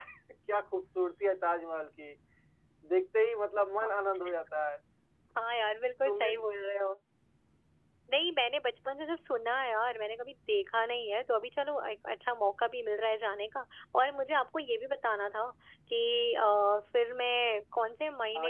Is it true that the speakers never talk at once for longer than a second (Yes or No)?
Yes